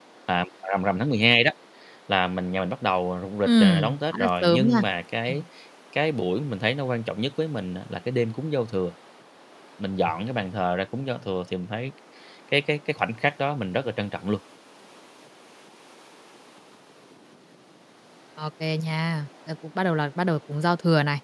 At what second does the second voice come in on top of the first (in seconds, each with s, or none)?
3.5 s